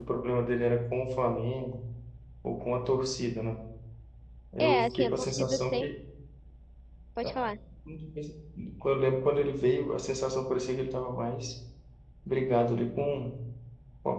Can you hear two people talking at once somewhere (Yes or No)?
Yes